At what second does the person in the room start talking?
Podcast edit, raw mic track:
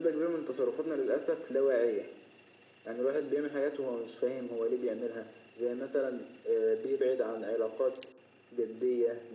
none

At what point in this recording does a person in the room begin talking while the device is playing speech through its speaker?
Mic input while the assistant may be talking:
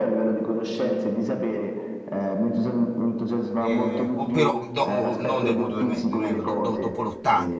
4 s

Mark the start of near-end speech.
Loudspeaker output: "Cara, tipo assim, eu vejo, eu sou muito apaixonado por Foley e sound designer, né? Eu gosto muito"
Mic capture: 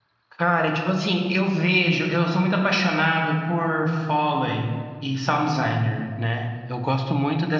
none

